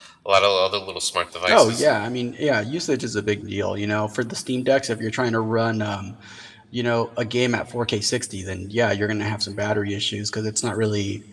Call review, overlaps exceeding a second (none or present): none